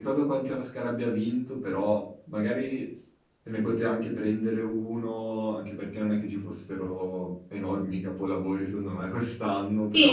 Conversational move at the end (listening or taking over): taking over